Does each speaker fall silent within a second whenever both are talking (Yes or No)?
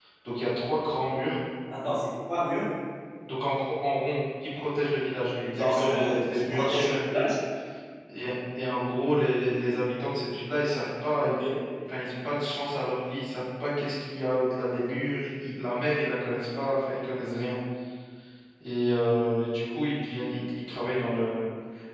No